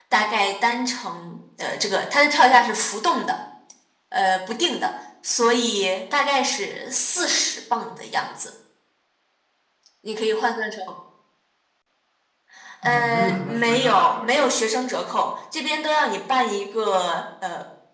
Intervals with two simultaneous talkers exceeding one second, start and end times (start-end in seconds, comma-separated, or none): 12.8-14.5